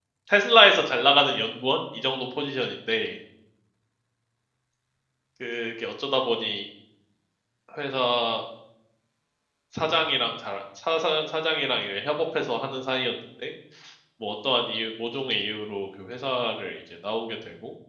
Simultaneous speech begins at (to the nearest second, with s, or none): none